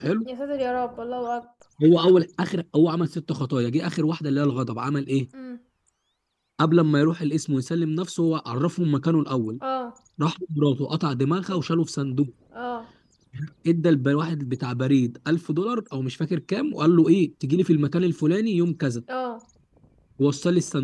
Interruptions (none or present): none